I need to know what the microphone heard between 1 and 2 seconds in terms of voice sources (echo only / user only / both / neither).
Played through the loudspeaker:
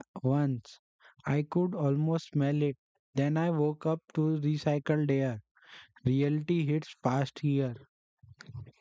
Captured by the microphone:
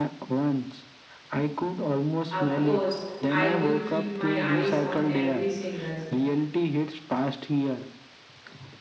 echo only